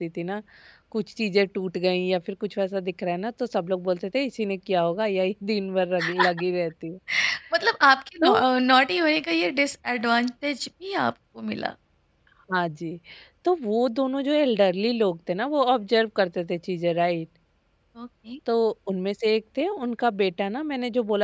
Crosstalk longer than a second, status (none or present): none